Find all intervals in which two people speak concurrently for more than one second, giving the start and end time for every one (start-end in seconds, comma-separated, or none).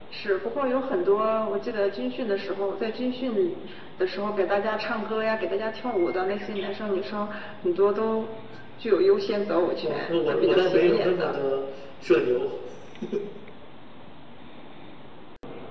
9.8-11.4